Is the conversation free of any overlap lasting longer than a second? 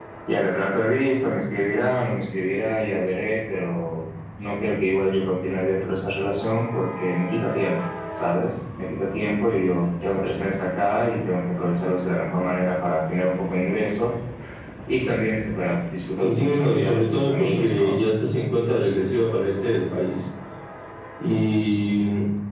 No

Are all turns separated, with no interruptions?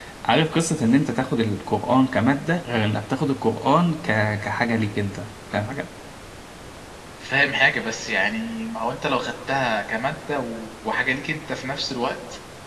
Yes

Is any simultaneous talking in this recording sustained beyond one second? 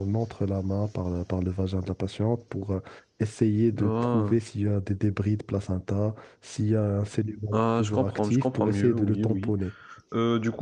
Yes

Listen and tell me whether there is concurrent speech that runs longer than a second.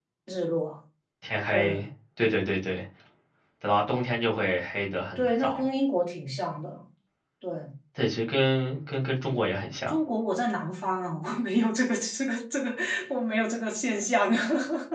No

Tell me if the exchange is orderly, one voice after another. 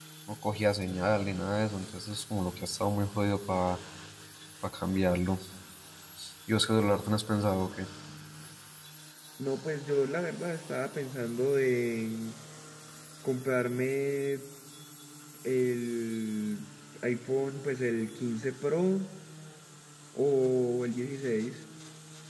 Yes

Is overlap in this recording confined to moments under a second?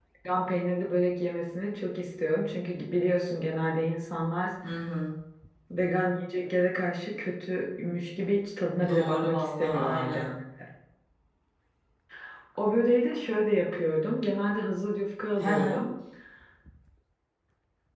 No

